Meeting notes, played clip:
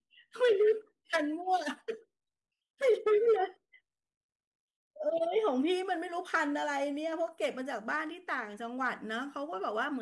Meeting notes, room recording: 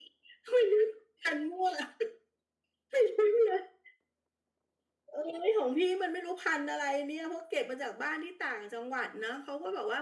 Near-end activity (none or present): none